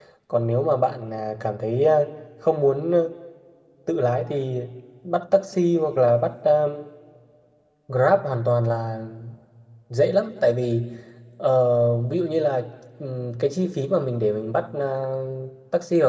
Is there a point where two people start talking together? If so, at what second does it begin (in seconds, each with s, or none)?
none